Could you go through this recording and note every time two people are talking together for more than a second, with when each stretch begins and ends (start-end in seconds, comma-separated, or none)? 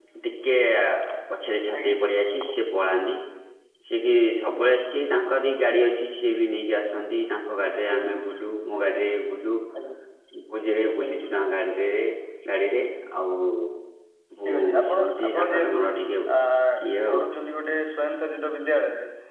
14.4-15.8